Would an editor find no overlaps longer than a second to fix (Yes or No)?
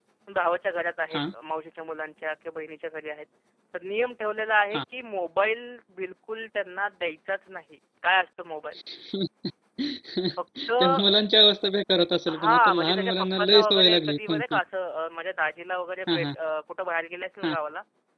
No